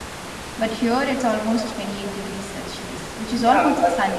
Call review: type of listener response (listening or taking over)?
taking over